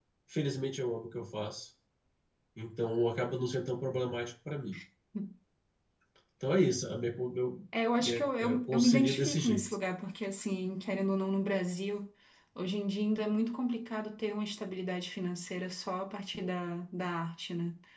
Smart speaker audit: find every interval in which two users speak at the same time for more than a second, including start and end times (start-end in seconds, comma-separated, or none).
8.0-9.6